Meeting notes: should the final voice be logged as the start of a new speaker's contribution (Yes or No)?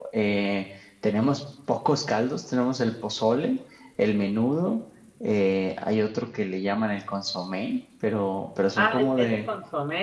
Yes